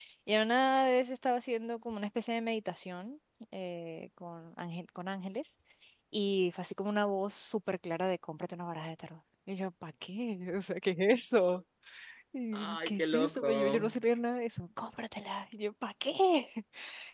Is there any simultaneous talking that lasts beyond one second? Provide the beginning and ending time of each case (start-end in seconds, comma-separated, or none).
12.5-13.9